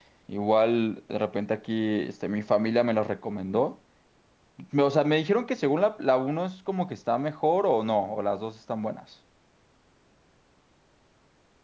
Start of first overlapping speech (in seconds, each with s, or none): none